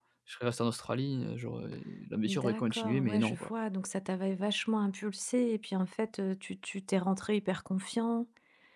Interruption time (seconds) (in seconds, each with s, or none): 2.2 s